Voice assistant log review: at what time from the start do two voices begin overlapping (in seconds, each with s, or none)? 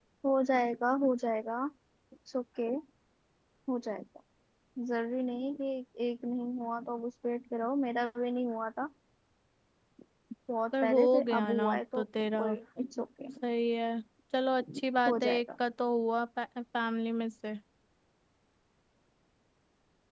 10.8 s